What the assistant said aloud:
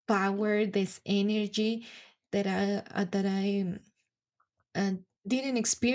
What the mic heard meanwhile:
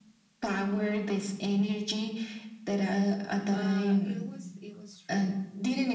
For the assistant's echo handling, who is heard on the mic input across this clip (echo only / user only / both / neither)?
both